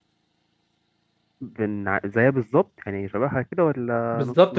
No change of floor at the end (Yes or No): No